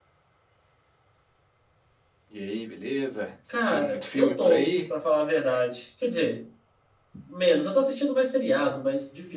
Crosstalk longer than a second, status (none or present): present